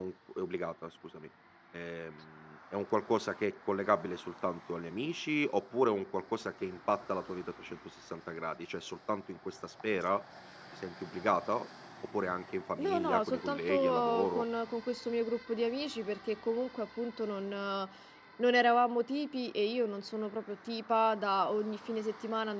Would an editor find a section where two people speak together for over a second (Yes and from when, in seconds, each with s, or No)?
Yes, from 12.8 s